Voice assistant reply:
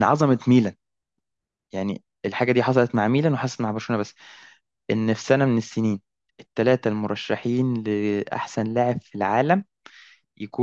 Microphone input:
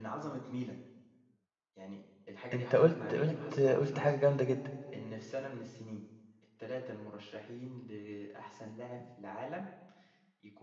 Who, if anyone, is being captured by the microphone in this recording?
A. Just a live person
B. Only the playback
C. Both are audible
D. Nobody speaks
C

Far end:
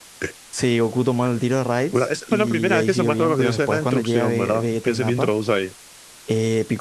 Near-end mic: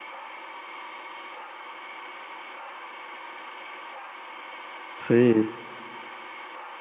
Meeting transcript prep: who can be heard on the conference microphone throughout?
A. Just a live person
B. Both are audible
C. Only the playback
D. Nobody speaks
A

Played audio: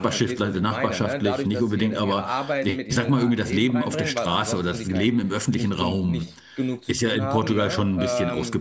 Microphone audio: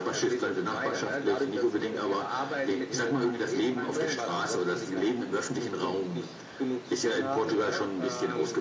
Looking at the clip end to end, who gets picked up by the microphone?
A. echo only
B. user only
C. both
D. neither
A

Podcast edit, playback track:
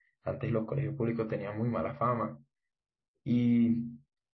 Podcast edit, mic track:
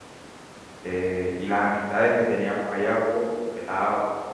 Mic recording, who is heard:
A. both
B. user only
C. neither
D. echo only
B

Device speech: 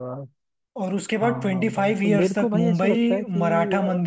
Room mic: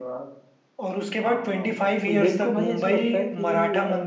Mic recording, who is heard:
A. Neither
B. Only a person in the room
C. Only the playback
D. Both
C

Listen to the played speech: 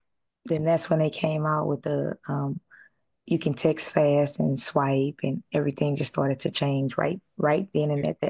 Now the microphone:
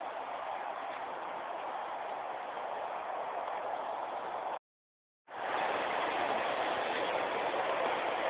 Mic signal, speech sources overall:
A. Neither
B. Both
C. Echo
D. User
A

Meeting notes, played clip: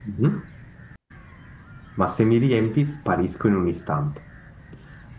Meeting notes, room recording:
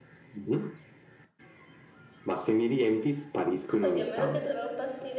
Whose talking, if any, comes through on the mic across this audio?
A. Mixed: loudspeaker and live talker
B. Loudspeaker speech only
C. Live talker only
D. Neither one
A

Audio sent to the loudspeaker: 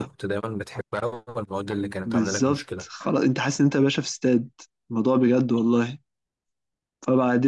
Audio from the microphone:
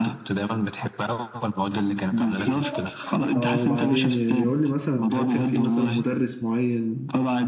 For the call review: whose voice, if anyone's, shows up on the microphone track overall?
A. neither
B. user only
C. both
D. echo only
C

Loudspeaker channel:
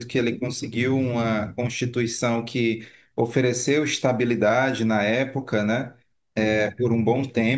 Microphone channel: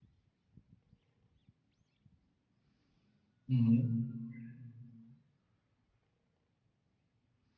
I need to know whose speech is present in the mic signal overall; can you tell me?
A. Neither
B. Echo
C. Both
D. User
D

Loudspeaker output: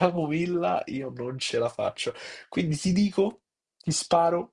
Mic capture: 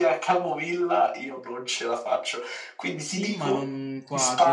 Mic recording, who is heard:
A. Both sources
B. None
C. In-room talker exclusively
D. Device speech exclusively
A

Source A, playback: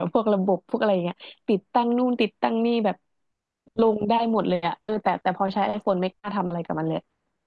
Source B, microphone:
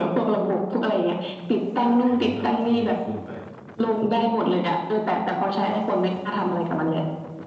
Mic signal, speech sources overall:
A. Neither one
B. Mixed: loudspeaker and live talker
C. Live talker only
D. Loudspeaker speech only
B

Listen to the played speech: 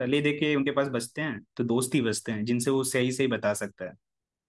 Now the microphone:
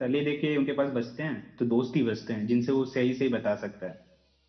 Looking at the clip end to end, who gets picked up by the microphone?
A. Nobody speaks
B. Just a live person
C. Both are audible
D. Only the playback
D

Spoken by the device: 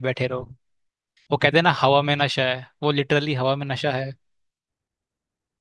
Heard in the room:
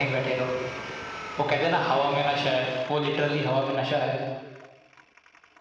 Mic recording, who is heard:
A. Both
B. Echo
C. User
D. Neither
B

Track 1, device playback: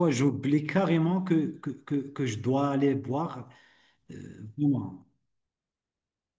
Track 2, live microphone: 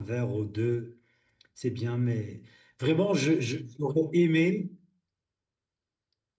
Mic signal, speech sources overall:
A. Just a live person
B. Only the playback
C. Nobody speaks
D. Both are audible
A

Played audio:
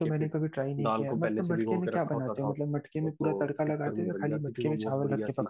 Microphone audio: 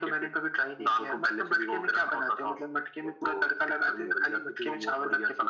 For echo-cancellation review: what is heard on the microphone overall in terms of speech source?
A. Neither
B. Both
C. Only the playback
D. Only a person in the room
C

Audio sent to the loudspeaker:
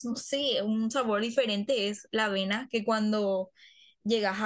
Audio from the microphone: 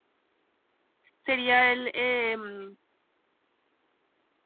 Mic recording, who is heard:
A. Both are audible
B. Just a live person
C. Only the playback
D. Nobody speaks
B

